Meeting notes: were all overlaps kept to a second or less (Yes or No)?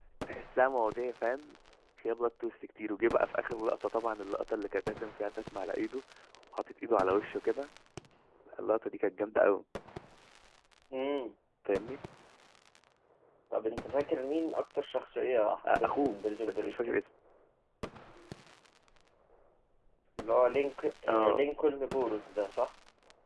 No